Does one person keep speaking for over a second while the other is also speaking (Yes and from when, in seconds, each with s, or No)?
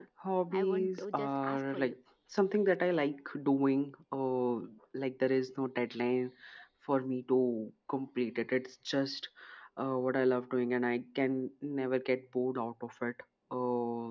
Yes, from 0.5 s